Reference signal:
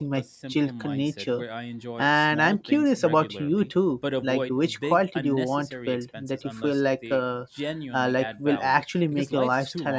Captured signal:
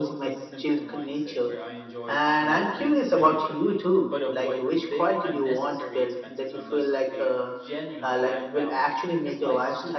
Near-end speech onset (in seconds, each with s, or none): none